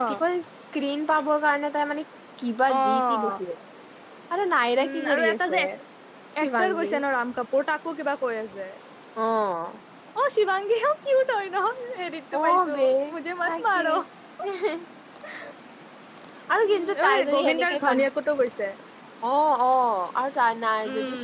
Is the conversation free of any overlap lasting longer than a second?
No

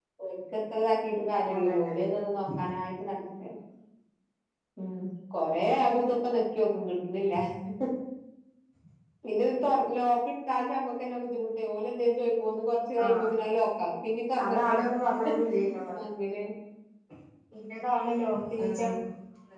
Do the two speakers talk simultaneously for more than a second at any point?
No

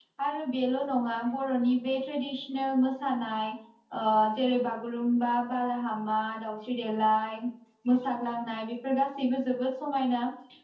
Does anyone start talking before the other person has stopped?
No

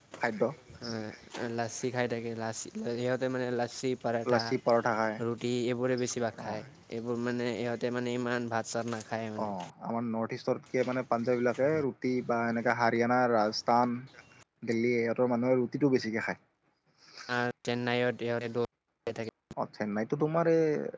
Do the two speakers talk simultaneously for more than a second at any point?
No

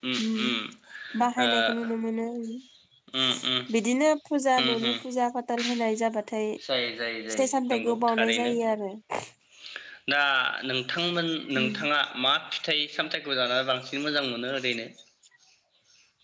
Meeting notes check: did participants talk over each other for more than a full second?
Yes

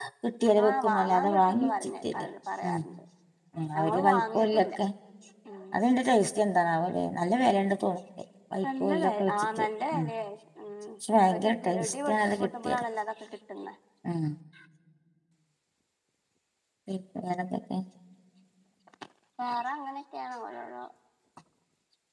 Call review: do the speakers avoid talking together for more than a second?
No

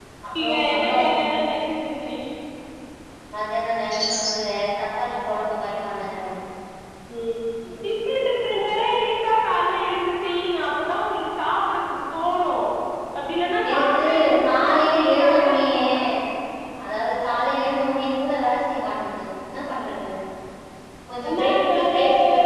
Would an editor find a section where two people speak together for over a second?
Yes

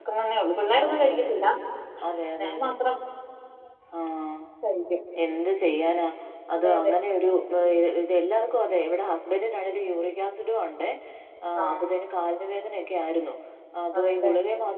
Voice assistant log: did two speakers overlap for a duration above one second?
No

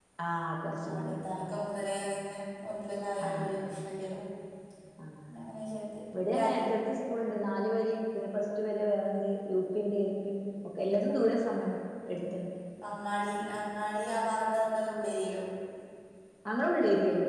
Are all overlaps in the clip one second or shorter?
Yes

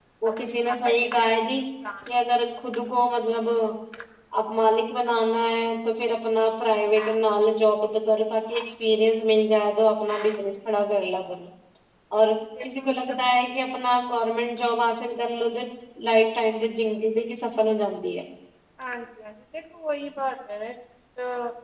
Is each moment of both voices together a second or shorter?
No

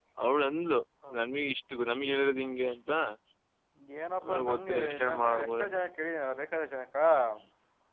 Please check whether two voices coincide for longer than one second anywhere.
Yes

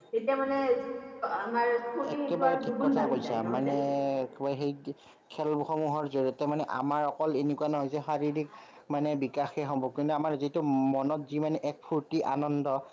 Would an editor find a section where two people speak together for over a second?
Yes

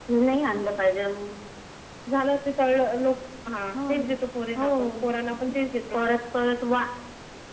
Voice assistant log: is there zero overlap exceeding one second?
Yes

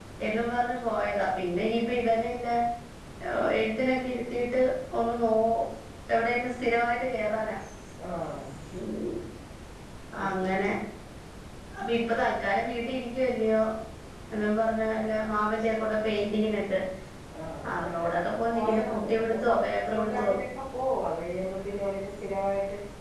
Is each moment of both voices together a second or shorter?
No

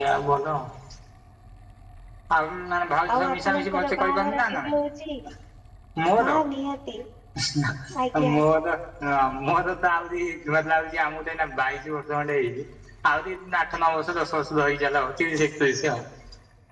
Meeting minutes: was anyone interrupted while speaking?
Yes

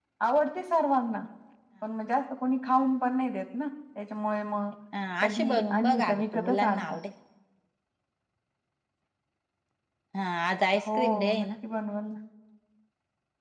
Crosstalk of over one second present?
Yes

